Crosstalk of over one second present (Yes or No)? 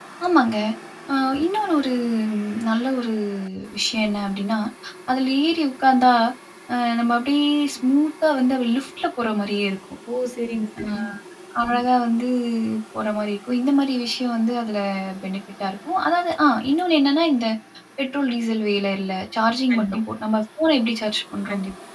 No